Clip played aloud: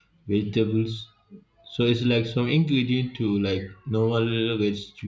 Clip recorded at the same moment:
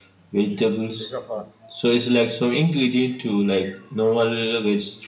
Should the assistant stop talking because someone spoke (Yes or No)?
Yes